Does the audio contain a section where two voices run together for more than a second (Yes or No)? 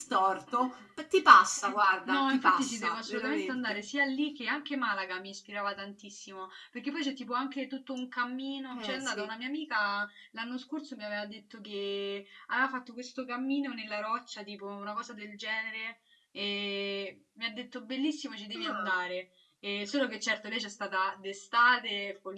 Yes